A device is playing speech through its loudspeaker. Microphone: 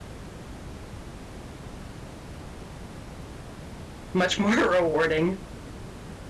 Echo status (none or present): none